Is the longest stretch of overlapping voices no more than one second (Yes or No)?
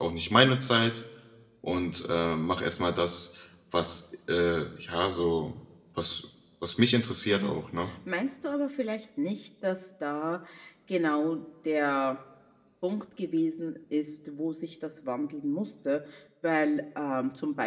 Yes